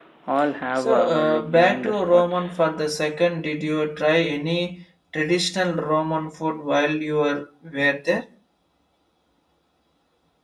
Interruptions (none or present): present